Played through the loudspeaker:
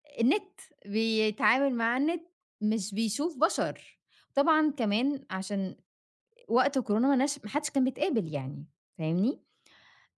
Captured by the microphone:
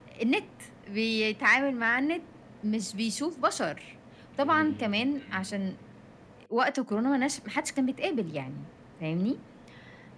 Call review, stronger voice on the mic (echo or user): echo